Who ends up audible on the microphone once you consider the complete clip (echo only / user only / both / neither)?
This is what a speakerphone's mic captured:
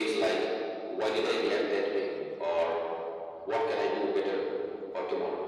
echo only